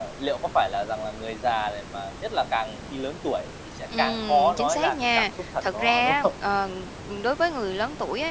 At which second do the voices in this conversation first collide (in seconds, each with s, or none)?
3.9 s